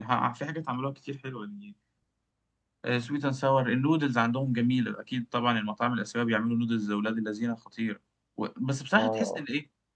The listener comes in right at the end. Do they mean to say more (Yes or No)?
No